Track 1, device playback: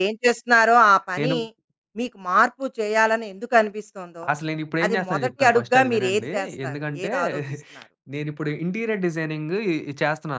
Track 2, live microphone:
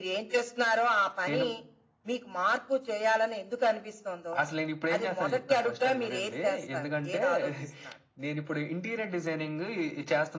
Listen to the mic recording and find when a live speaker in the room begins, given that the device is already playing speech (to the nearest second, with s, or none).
none